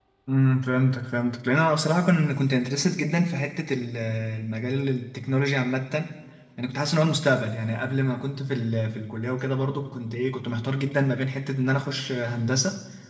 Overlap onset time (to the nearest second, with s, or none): none